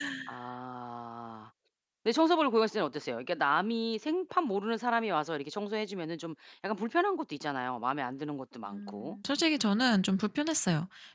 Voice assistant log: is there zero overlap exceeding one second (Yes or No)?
Yes